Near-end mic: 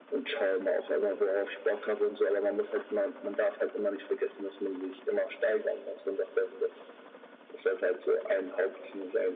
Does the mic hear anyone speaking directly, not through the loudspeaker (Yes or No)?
No